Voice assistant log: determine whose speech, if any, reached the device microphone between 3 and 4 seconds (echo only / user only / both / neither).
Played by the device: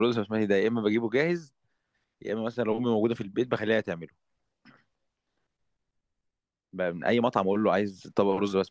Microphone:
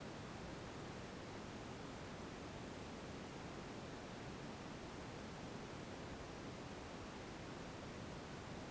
neither